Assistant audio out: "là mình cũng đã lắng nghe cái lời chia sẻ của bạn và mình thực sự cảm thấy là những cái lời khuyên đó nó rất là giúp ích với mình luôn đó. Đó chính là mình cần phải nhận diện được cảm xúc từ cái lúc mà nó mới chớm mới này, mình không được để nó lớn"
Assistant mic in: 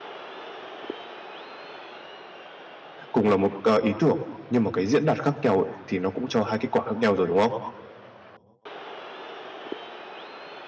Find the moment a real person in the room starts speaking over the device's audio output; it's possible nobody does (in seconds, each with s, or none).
3.1 s